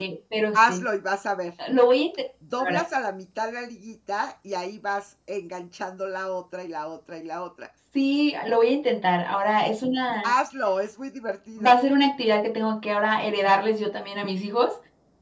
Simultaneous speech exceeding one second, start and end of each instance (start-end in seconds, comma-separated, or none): none